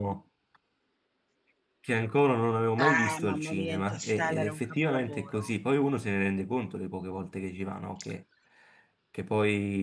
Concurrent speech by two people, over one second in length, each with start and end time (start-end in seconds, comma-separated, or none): 2.8-5.5